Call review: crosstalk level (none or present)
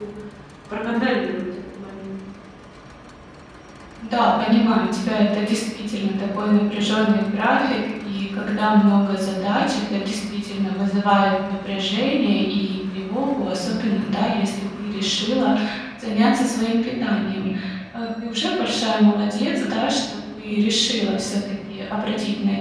none